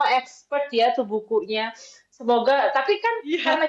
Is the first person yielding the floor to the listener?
No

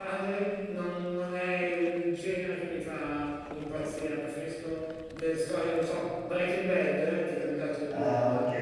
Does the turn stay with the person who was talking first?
No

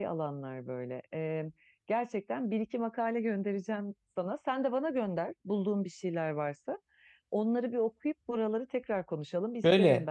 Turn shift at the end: Yes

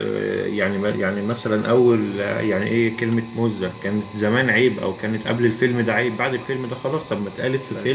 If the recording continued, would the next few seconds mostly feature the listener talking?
No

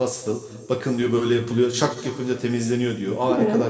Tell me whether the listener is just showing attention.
Yes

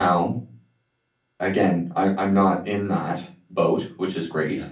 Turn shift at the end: No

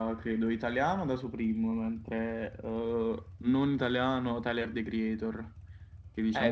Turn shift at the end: Yes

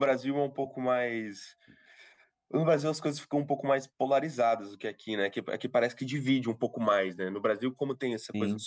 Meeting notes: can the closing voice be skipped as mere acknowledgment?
Yes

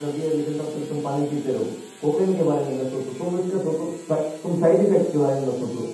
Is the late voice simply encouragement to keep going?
No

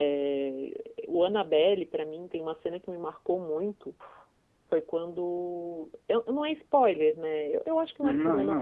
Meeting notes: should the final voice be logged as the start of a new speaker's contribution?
No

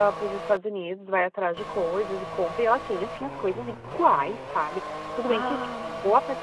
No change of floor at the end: Yes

